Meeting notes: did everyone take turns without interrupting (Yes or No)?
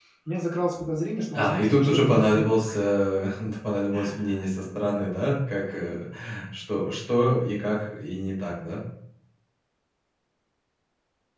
No